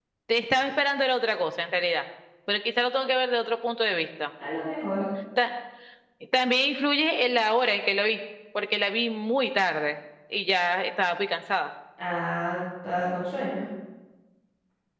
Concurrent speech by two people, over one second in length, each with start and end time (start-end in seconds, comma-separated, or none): none